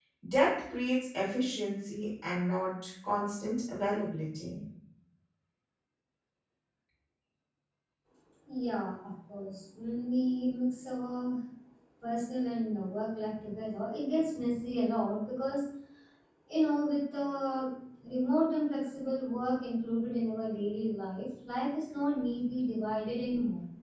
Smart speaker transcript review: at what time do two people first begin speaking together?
none

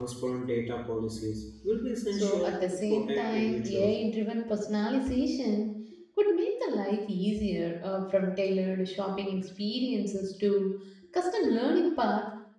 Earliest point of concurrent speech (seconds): 2.1 s

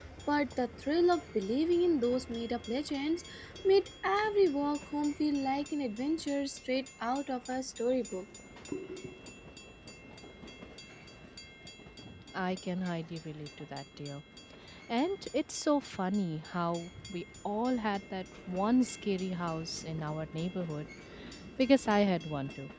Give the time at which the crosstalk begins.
none

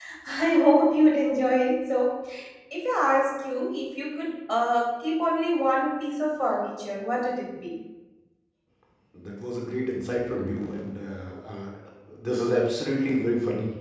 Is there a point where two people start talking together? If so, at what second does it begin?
none

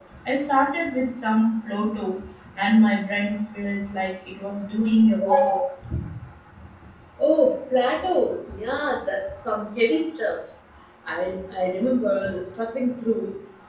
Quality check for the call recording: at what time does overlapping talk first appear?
none

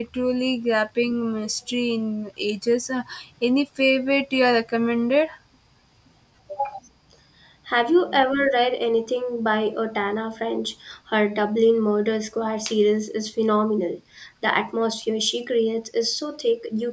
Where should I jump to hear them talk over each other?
none

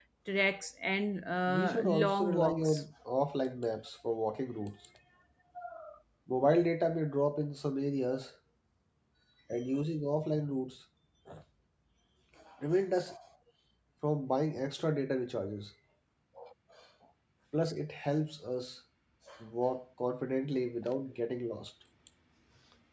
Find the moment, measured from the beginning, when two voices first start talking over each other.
1.5 s

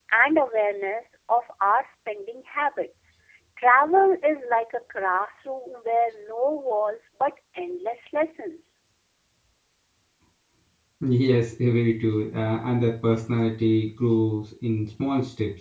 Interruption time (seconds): none

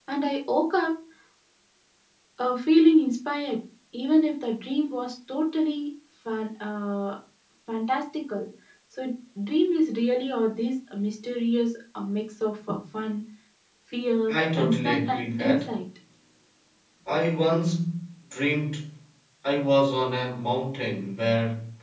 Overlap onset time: 14.3 s

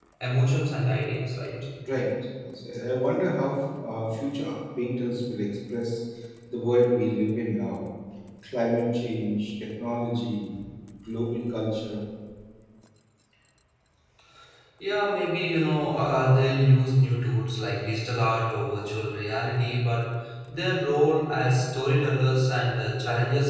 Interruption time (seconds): none

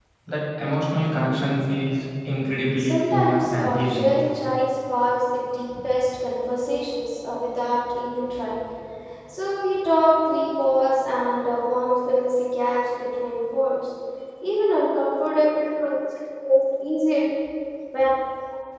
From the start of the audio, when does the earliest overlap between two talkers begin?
2.8 s

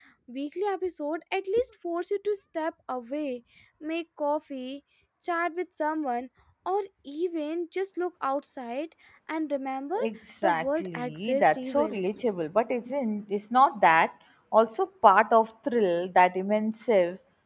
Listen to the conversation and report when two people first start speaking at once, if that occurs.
10.4 s

